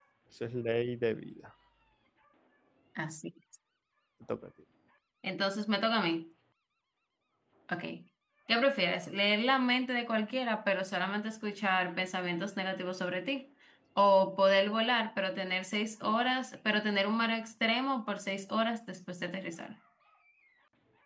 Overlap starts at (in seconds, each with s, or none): none